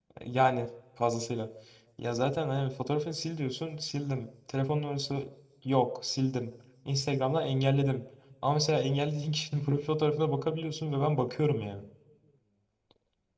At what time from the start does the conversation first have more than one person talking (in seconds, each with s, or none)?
none